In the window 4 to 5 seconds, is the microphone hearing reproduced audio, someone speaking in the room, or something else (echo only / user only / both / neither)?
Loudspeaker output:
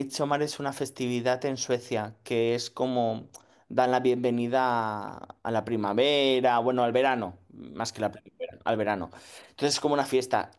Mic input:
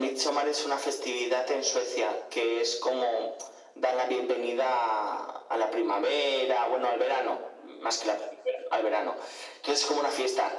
echo only